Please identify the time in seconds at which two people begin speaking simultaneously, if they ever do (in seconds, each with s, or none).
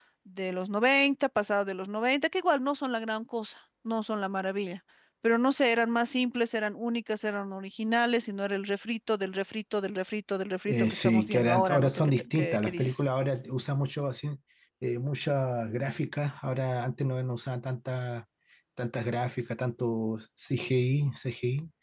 10.7 s